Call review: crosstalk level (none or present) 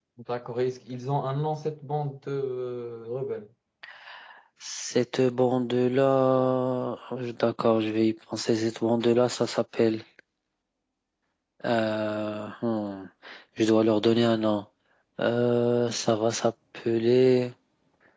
none